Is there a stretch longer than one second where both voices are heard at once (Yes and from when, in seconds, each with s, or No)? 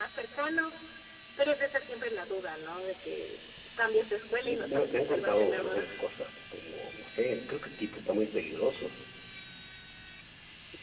Yes, from 4.4 s